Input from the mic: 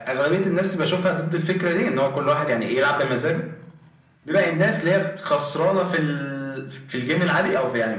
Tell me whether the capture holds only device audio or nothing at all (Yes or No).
Yes